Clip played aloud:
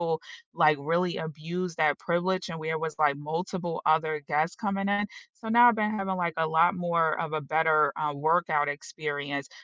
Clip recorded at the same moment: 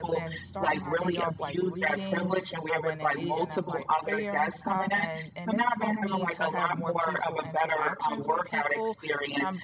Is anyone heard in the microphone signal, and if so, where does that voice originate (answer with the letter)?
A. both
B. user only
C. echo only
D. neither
A